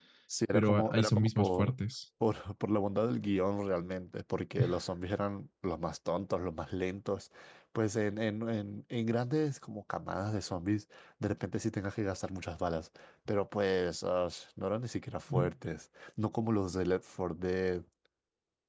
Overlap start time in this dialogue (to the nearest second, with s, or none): 1 s